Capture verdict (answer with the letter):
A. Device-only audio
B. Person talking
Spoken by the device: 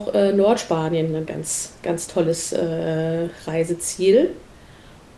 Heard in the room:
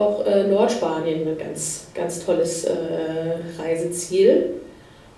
A